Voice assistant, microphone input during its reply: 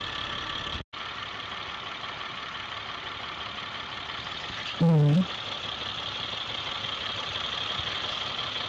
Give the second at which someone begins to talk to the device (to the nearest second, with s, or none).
5 s